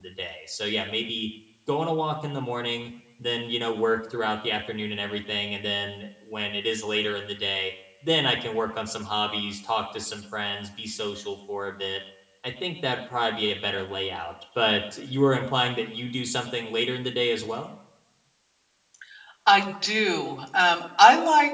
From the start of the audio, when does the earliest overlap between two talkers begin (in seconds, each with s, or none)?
none